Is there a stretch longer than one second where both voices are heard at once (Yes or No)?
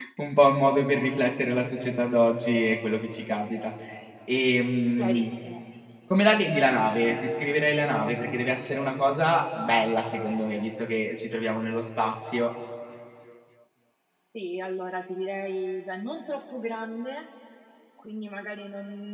No